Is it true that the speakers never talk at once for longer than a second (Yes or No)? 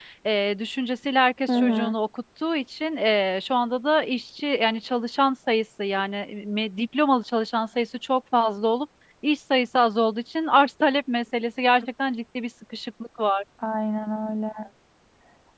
Yes